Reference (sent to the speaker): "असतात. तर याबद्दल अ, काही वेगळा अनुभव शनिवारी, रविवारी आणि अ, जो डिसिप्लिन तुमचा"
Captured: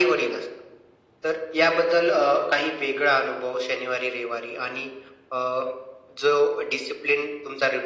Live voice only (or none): none